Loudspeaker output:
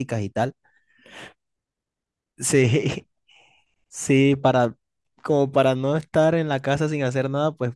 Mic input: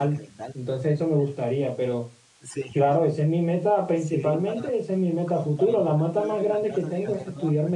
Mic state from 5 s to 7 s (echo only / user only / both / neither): both